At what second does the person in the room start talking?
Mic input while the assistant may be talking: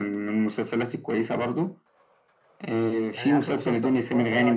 3.1 s

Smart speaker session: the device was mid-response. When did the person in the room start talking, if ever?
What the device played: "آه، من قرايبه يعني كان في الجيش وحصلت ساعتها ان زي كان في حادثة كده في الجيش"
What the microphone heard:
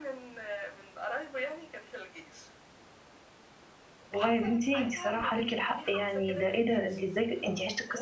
4.1 s

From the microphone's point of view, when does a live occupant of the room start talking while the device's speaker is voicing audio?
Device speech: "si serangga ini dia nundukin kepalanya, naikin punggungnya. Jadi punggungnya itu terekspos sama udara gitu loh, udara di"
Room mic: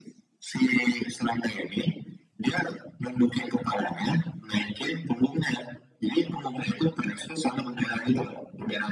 none

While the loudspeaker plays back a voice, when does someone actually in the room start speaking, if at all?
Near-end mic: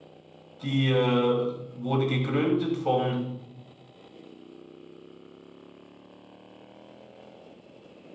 0.6 s

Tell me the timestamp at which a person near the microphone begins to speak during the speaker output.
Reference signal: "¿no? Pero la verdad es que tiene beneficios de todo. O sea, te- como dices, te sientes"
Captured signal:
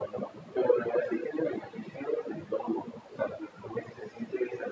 none

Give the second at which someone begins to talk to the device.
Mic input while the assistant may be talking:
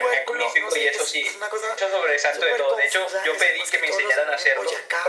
none

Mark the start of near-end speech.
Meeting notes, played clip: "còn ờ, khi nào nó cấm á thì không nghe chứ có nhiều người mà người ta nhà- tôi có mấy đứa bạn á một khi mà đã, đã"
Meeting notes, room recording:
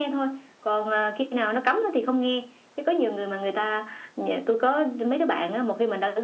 none

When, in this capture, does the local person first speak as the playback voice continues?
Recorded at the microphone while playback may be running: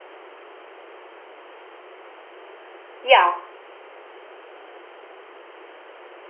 3.0 s

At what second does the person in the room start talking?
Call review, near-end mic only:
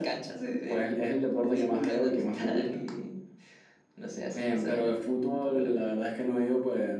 none

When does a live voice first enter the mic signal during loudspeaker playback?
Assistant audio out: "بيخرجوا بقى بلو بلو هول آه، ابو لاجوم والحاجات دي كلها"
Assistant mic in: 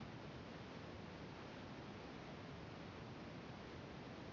none

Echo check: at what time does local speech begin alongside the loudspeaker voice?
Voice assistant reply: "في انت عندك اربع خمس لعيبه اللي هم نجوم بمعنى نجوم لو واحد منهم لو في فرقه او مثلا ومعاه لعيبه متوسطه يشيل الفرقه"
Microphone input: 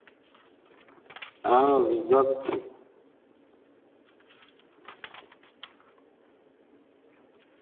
1.4 s

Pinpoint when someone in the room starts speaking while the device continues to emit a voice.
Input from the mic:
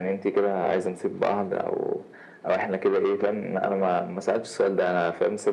none

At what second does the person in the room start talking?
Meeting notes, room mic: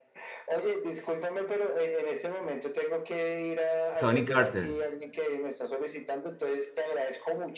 3.9 s

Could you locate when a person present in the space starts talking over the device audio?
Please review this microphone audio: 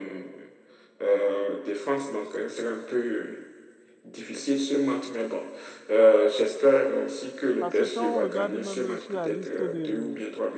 7.6 s

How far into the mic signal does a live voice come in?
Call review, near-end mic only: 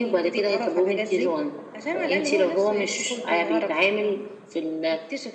none

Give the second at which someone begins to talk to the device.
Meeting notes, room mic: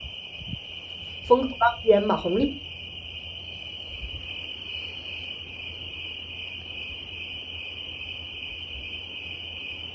1.2 s

